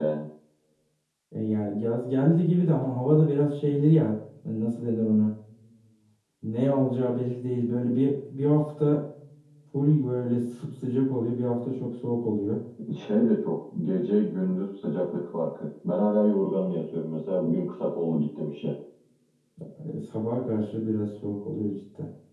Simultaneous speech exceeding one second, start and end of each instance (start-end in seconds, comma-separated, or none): none